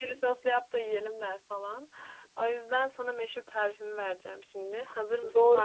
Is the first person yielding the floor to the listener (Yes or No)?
Yes